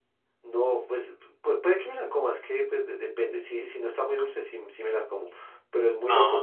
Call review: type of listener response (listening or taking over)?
listening